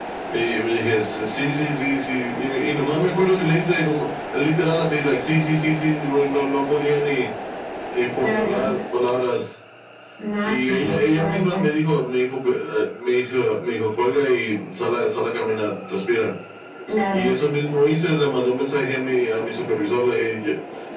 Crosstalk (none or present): present